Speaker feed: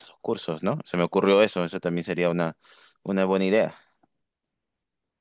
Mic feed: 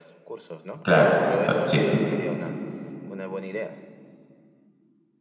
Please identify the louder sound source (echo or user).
user